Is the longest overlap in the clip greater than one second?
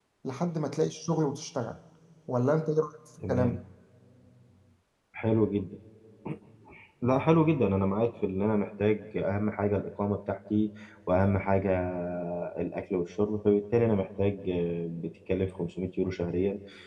No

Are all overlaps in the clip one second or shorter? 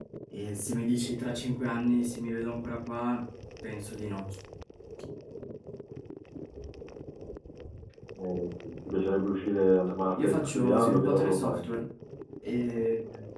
No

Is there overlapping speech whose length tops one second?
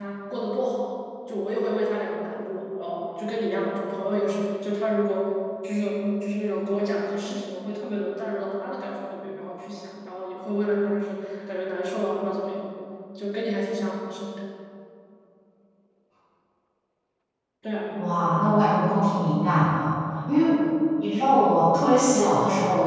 No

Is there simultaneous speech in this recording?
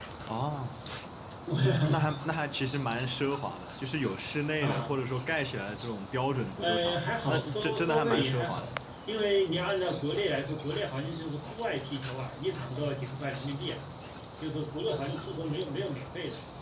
Yes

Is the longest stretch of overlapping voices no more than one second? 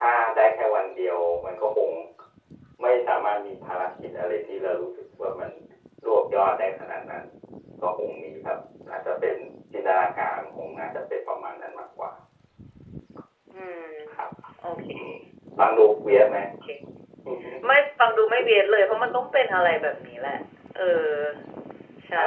Yes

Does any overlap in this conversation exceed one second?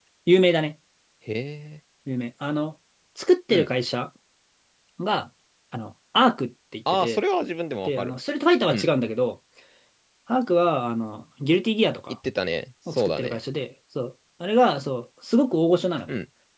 No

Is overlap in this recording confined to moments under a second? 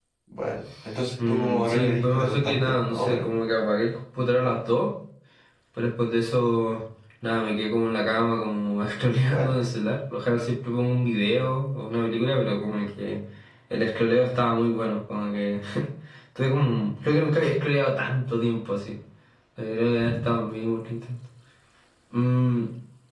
No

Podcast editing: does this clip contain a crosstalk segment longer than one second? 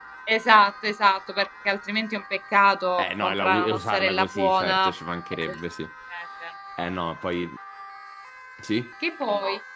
Yes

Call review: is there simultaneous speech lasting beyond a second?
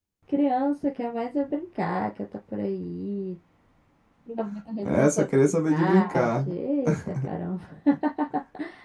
Yes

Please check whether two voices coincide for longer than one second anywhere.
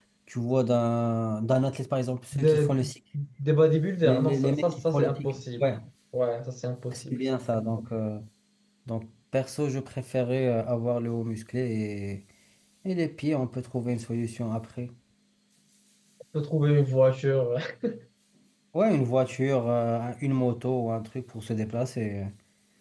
Yes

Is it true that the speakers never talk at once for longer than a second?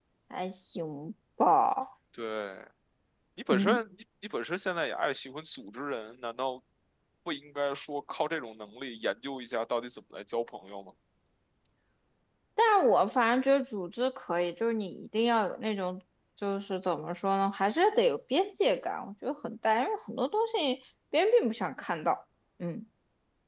Yes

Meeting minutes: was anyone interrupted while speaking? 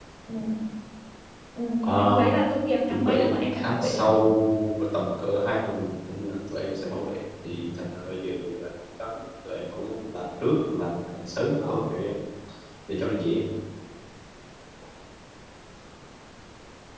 Yes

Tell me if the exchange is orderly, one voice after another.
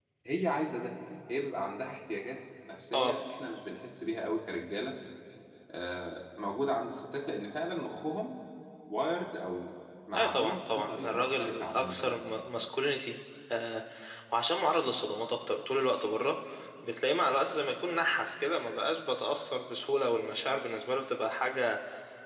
No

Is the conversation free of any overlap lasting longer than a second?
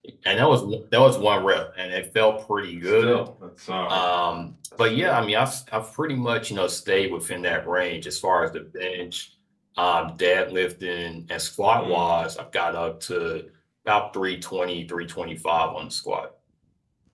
Yes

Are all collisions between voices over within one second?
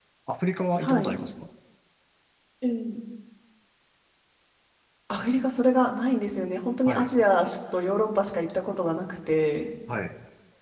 Yes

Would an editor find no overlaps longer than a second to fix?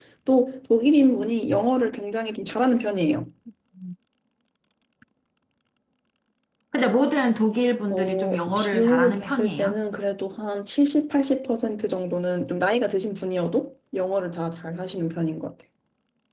No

